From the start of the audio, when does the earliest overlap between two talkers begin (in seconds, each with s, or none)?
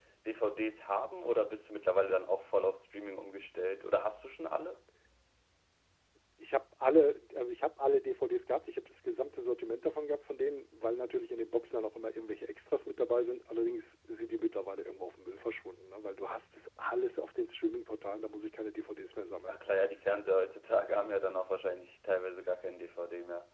none